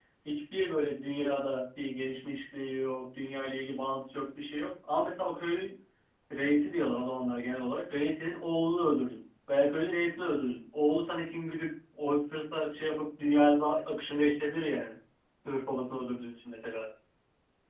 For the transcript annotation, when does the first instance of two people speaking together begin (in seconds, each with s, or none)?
none